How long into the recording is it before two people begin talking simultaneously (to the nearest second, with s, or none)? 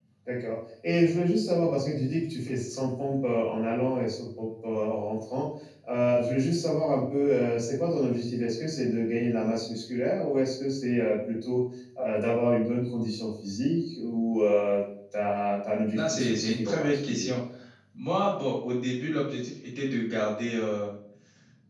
16 s